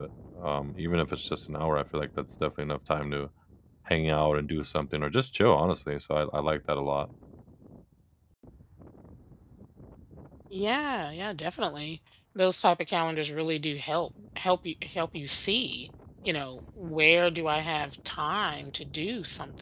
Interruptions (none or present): none